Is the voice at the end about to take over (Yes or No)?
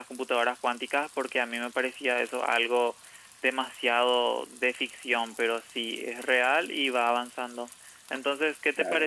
No